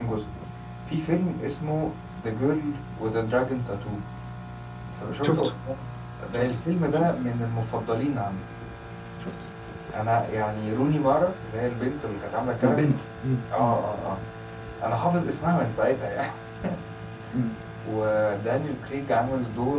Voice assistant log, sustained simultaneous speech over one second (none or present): none